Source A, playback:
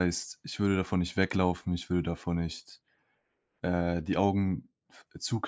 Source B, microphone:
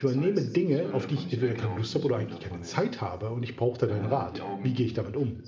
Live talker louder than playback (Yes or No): Yes